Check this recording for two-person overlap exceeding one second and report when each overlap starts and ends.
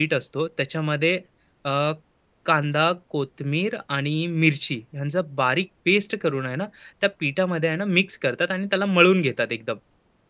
none

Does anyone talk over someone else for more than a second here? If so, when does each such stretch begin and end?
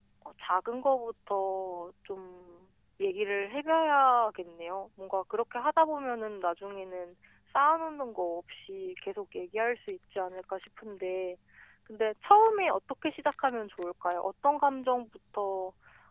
none

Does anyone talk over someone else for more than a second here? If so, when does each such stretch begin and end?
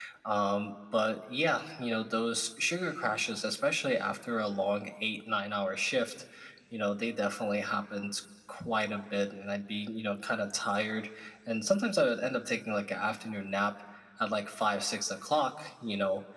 none

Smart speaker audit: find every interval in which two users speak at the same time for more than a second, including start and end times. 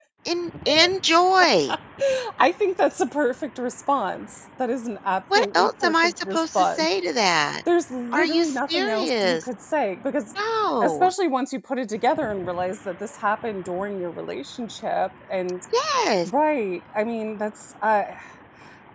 5.4-6.9, 8.1-9.4

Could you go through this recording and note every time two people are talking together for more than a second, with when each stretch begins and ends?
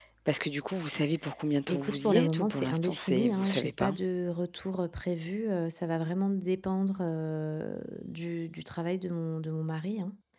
1.7-3.9

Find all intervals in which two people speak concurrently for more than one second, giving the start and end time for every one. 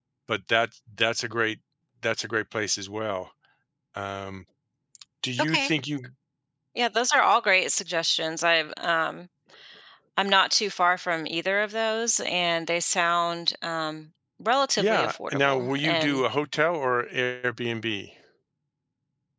14.8-16.2

